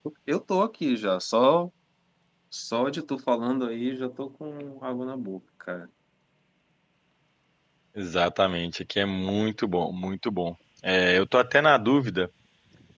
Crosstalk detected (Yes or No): No